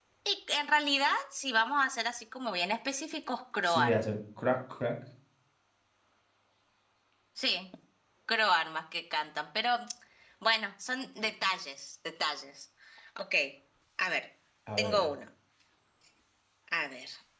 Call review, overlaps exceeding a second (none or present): none